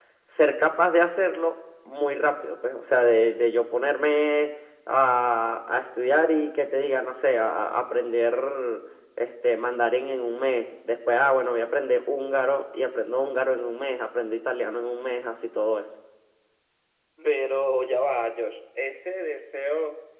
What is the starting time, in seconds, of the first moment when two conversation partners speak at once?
none

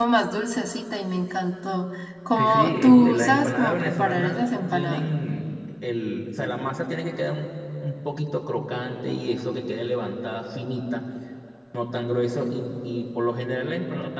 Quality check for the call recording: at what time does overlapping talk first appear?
2.4 s

